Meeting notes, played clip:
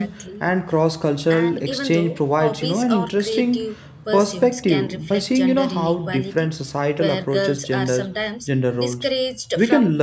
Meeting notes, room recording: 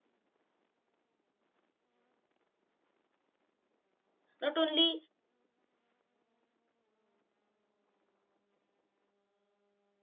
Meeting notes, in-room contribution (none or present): present